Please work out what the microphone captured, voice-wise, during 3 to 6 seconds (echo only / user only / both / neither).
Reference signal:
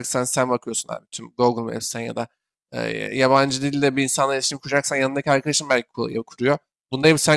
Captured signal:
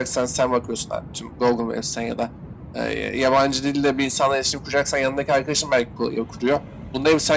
echo only